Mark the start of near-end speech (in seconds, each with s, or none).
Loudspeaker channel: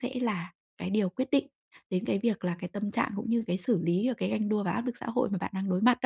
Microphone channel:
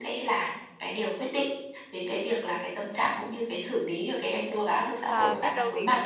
5.0 s